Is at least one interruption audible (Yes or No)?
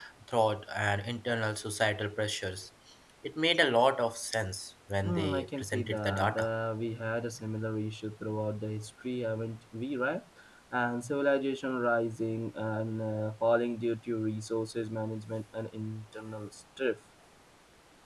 Yes